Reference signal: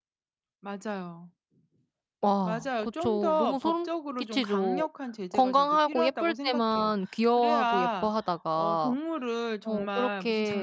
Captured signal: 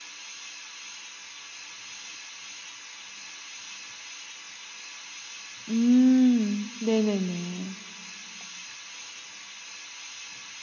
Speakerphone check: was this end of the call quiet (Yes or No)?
No